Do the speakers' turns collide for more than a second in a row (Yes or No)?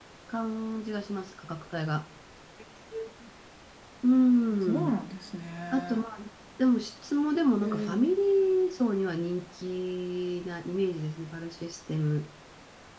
No